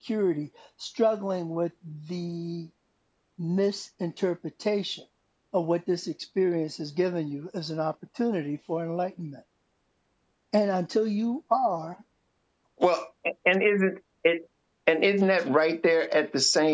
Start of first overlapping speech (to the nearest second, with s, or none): none